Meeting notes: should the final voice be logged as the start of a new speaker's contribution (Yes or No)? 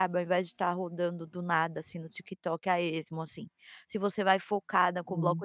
No